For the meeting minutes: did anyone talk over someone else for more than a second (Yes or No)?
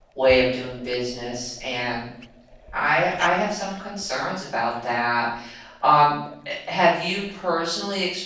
No